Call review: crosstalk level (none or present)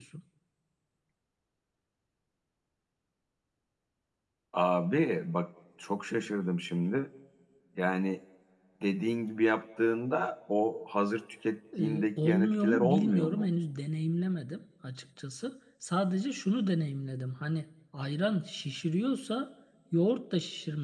present